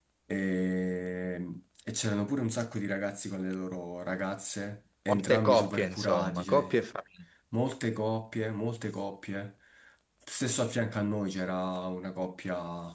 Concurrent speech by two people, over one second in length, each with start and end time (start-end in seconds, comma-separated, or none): 5.1-6.7